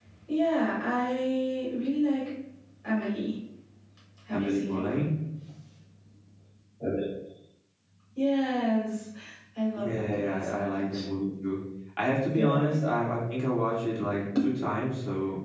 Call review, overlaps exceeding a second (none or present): present